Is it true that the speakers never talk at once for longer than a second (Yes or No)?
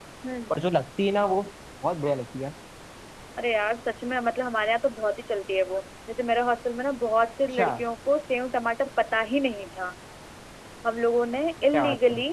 Yes